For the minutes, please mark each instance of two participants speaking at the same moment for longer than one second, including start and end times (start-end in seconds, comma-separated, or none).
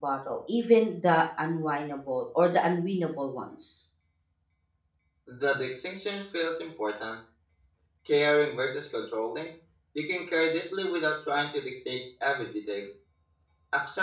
none